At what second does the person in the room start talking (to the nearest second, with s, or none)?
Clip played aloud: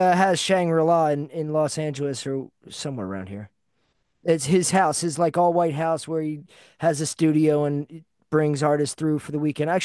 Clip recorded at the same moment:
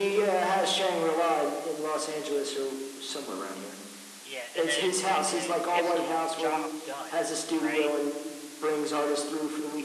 4 s